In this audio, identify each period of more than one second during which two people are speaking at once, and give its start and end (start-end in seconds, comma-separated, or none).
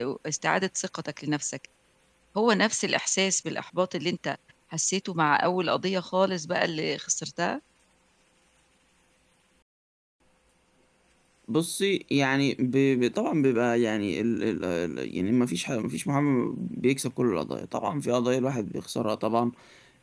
none